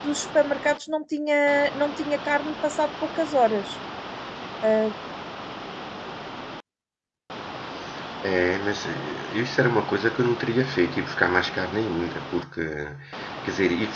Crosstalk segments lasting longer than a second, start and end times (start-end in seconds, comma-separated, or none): none